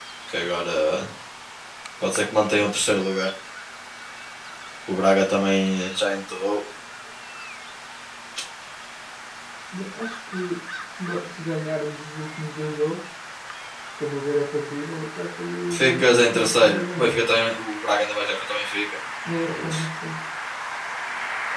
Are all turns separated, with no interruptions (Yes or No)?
No